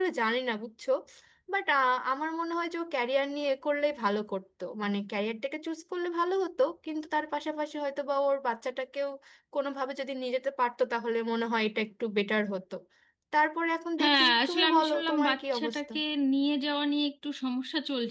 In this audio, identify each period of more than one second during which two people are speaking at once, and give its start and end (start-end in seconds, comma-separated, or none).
14.0-15.9